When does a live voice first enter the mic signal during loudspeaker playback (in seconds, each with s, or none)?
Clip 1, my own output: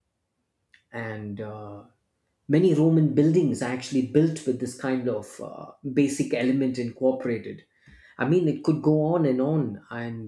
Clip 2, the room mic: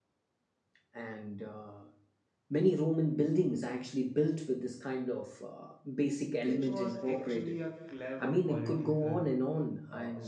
6.4 s